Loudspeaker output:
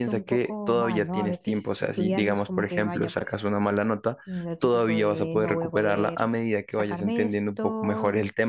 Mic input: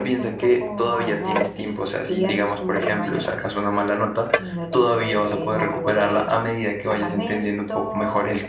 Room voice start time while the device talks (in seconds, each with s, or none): none